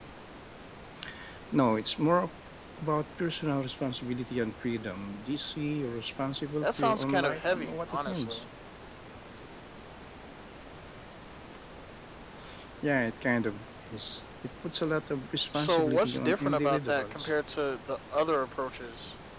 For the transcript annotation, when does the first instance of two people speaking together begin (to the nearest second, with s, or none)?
7 s